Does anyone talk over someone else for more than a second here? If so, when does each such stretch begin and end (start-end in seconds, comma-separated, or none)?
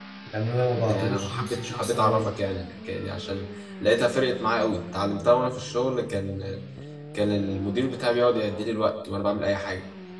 0.9-2.4